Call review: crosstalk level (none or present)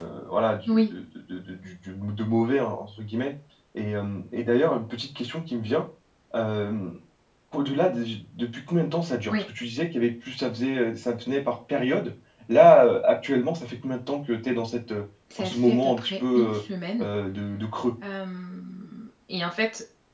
present